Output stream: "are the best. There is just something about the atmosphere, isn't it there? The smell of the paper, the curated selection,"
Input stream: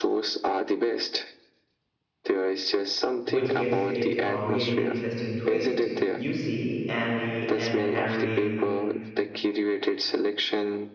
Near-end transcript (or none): which gives it a really interesting twist. You see Annie and Henry